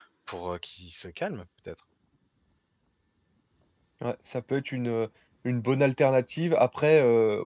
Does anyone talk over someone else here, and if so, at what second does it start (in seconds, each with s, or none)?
none